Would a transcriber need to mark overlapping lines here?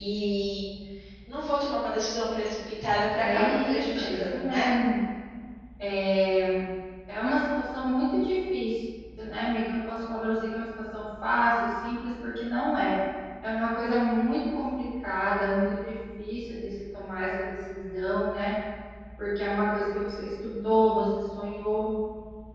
Yes, from 3.2 s

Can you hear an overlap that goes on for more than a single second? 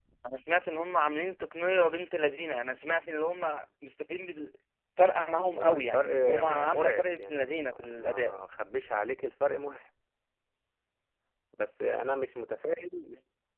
Yes, from 5.5 s

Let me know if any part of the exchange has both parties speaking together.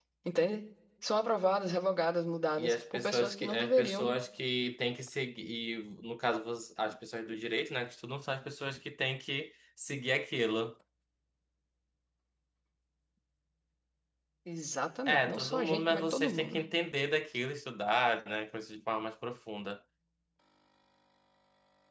Yes, from 2.6 s

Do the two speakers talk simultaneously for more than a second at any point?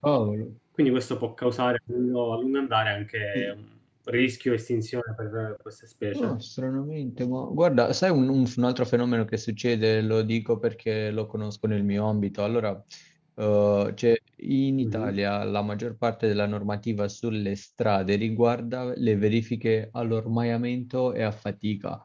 No

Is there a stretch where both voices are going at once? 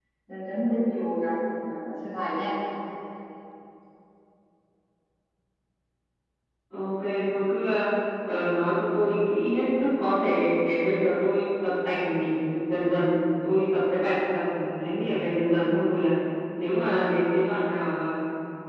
No

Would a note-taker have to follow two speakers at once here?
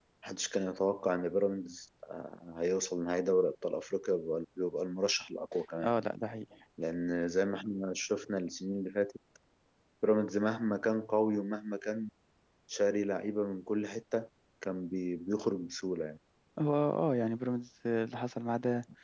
No

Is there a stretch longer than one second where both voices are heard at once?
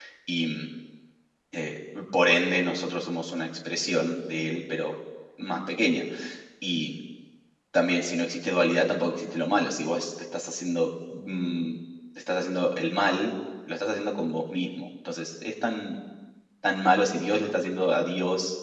No

